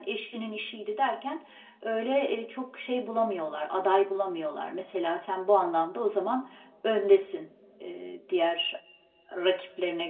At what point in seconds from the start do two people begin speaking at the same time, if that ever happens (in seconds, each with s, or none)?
none